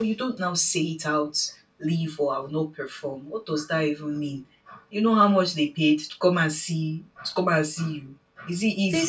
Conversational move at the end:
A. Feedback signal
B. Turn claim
B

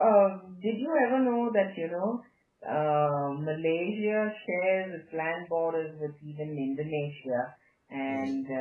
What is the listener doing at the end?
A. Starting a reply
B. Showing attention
B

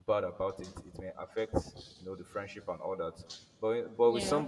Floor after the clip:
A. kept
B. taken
A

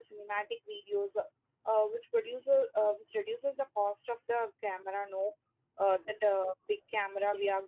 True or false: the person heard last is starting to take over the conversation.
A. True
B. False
B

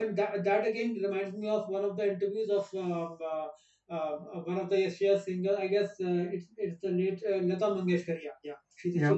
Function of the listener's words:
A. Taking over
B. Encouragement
B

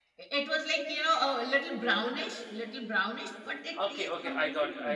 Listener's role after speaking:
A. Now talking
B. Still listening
A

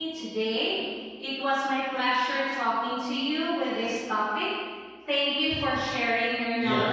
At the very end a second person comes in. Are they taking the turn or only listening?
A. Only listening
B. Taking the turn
B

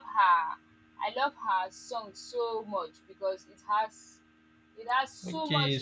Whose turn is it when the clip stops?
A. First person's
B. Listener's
B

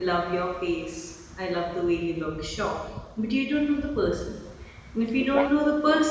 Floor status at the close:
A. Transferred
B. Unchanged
B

